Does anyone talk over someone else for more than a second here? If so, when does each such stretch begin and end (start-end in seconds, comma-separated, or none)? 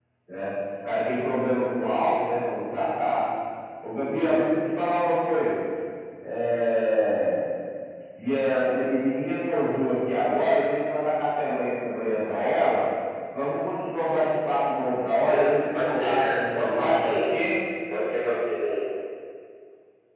15.2-17.3